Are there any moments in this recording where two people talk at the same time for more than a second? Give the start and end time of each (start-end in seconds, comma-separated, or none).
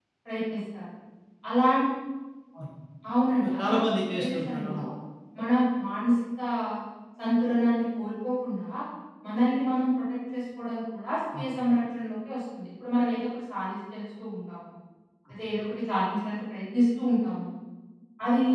3.4-4.8